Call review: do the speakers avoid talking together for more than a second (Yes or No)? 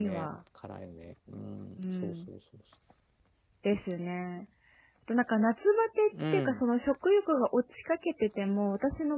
Yes